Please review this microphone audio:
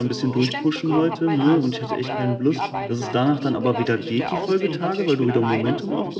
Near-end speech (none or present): present